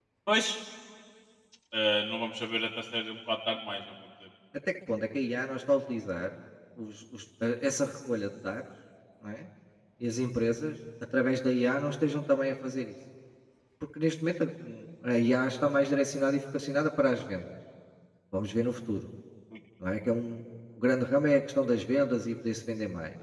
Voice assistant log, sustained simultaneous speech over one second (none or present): none